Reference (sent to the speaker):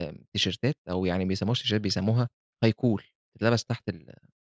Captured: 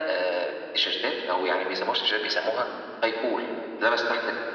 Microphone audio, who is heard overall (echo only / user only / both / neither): echo only